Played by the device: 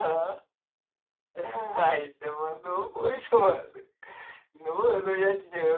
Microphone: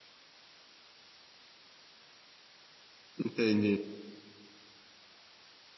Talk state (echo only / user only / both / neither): user only